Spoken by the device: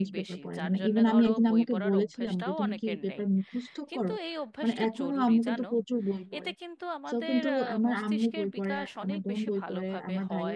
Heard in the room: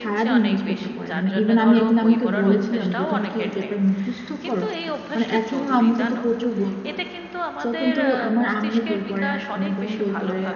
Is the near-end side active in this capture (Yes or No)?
No